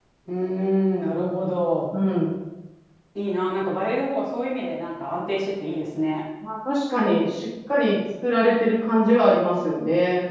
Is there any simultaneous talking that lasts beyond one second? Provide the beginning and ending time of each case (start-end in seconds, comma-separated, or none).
none